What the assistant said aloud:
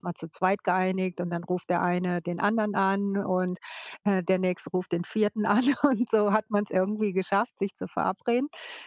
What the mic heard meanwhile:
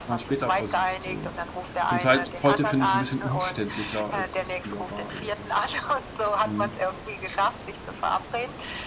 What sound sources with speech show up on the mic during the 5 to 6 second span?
both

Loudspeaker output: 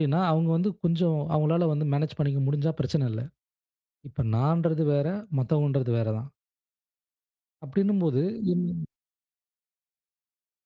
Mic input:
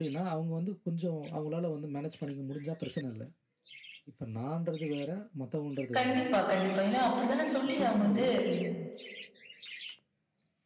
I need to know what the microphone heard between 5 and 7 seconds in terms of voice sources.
both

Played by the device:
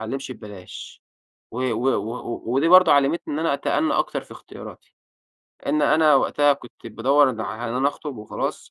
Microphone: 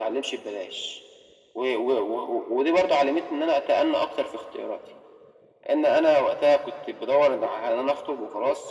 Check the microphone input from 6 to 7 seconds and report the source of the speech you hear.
echo only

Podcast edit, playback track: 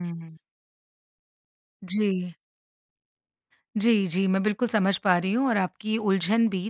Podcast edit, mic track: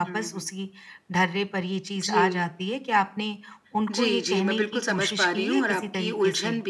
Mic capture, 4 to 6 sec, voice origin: both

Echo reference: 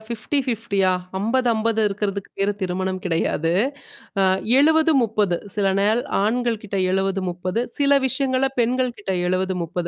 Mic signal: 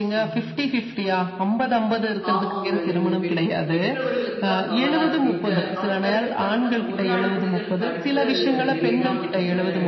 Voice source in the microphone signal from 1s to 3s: both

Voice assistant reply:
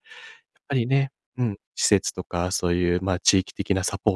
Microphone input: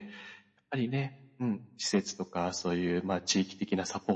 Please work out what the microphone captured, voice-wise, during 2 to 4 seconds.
echo only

